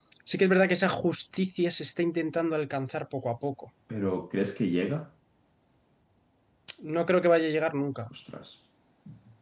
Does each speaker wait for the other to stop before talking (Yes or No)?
Yes